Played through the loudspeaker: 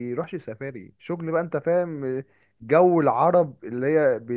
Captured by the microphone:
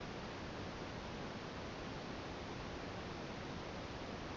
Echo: none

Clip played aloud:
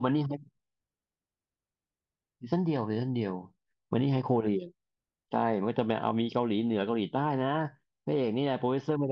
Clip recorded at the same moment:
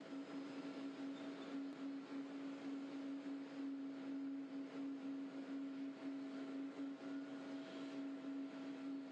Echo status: none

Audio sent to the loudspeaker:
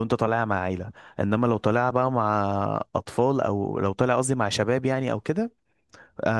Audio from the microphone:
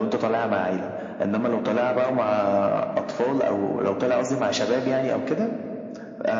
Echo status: present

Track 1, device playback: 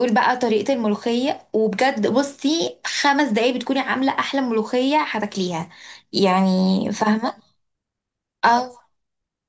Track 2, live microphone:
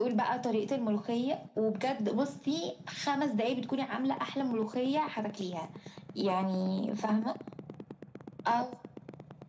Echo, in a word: present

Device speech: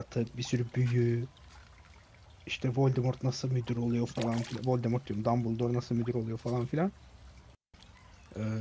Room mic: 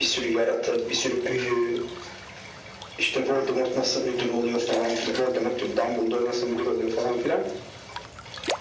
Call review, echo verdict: present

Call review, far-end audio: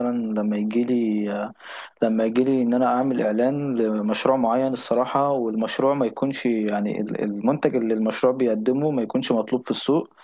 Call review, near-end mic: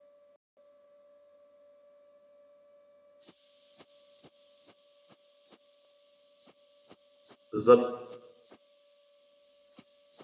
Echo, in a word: none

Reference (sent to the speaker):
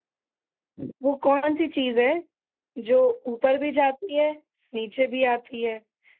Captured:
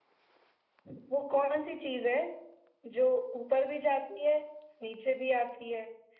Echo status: present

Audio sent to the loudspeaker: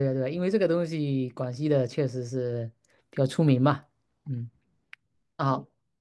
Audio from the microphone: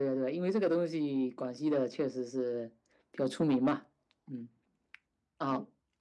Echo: present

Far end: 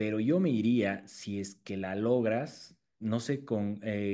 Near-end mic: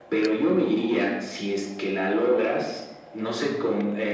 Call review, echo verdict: present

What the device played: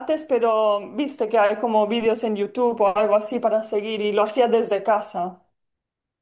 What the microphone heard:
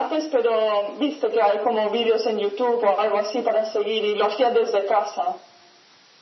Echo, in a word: present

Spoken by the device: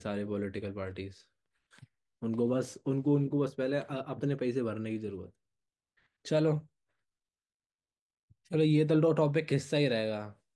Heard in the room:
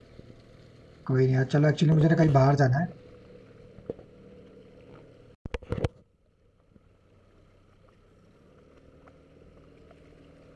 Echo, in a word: none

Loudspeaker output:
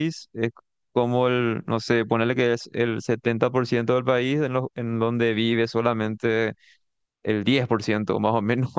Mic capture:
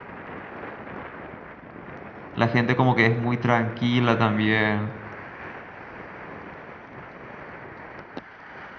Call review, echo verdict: none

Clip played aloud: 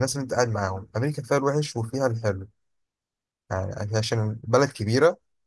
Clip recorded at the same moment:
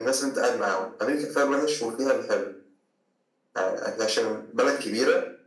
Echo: present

